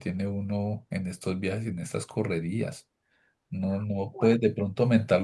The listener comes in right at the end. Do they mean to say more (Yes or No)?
No